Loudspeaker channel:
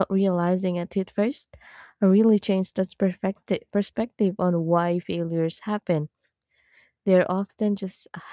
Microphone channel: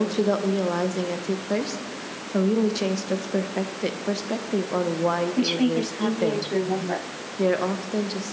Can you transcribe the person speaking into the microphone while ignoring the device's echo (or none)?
which make it easier to remember.